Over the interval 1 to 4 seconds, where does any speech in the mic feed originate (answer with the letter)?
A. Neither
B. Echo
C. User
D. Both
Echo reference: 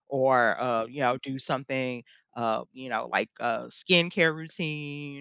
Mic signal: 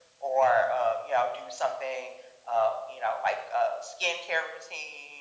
B